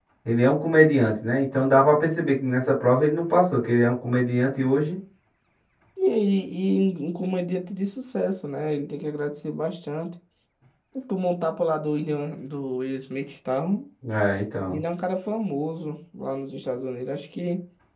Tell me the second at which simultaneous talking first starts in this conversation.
none

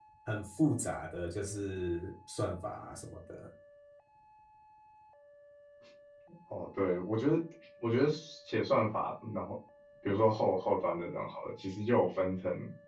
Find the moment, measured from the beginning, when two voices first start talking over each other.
none

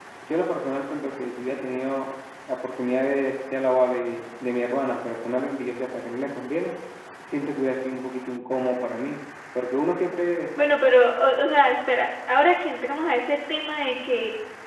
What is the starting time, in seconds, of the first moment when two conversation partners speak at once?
none

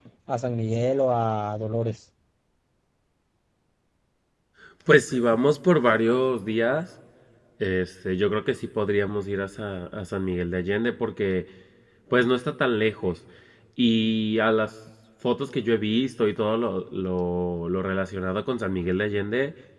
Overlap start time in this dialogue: none

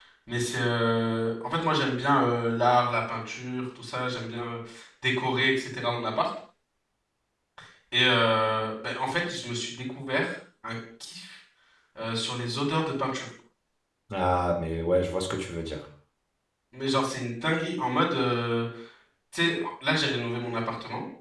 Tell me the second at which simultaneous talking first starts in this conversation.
none

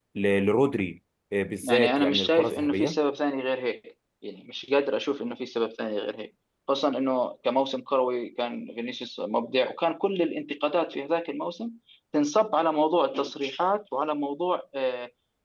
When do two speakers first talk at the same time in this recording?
1.6 s

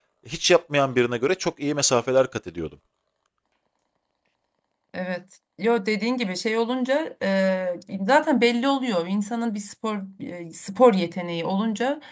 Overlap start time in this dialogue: none

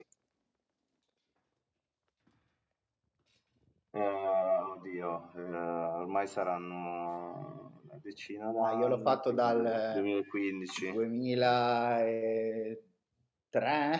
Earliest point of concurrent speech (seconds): 8.6 s

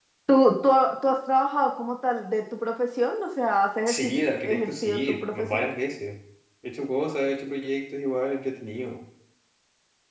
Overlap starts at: 3.9 s

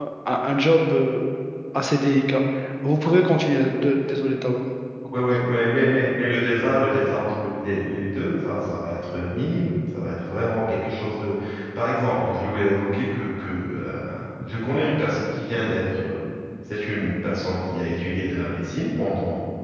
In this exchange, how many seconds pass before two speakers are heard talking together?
none

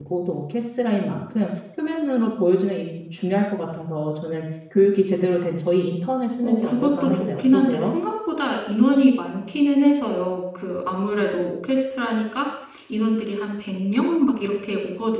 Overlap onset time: 6.4 s

